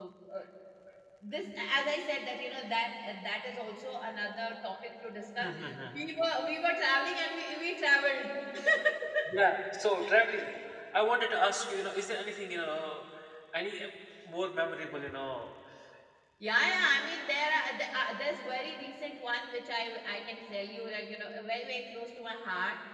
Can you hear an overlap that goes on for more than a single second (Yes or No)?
No